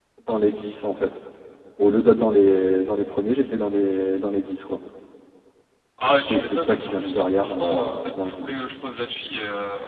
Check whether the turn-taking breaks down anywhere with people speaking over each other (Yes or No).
Yes